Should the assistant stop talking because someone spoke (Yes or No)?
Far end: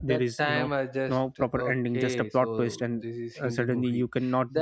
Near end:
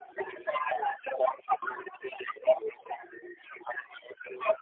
No